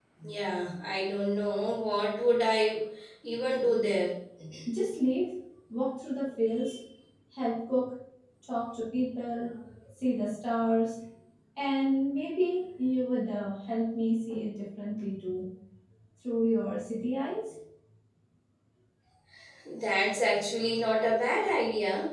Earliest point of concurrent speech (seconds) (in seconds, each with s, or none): none